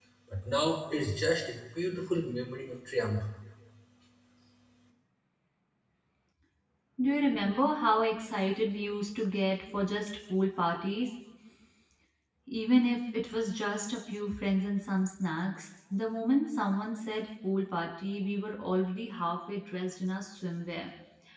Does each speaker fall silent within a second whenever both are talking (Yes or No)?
Yes